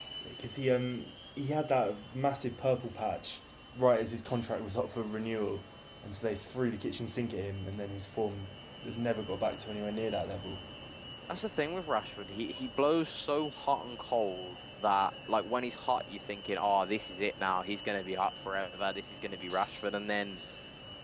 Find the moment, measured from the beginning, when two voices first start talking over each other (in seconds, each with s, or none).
none